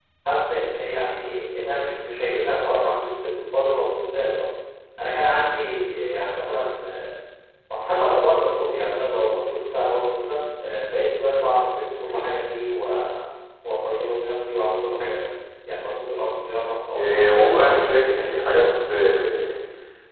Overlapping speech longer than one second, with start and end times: 16.9-18.7

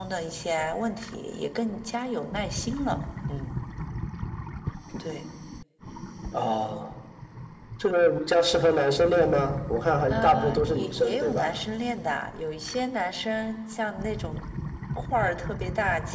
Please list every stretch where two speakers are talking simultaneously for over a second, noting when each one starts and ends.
10.1-11.5

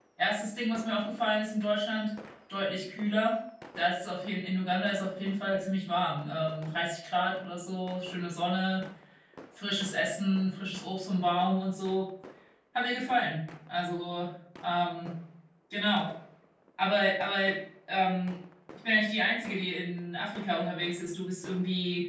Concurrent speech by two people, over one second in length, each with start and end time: none

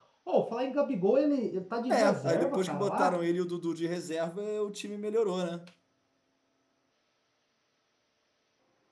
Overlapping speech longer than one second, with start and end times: 1.9-3.1

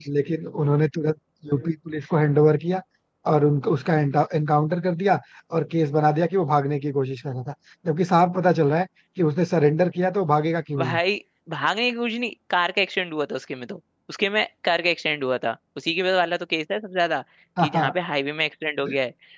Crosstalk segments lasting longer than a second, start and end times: none

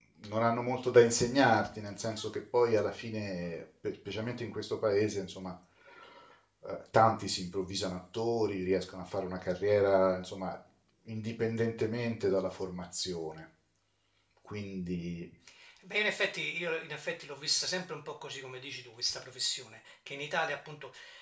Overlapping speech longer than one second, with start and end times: none

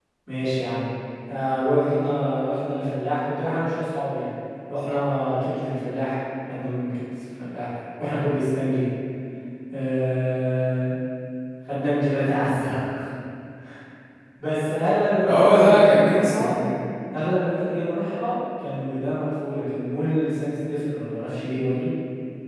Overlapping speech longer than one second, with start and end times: 15.2-16.5

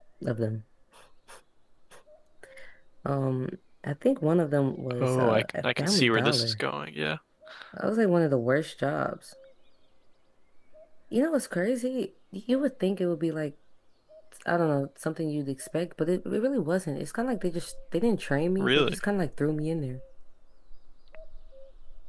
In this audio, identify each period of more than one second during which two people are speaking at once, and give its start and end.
5.0-6.5

